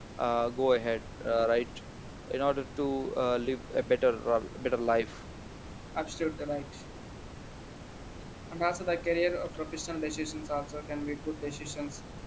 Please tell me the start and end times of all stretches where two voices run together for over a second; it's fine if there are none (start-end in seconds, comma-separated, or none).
none